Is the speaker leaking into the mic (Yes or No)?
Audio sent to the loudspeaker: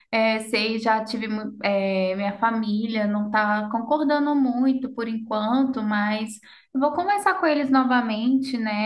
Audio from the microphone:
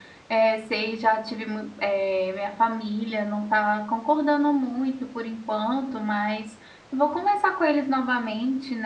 Yes